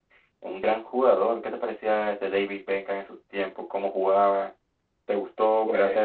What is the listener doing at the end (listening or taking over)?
listening